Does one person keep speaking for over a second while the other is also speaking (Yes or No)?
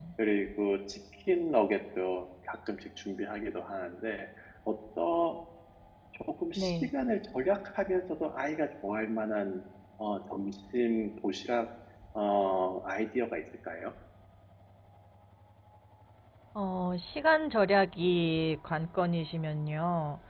No